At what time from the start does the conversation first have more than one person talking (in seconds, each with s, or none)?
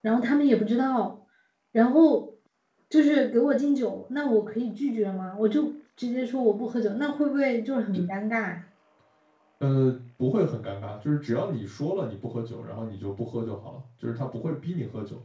none